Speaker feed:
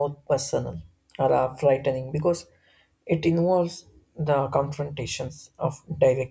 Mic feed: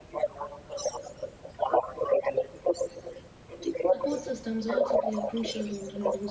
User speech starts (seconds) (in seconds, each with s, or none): 3.8 s